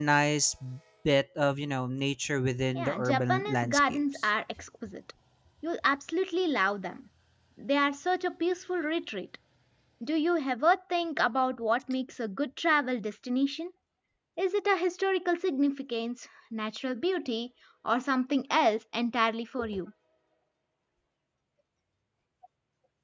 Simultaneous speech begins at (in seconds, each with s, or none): 2.7 s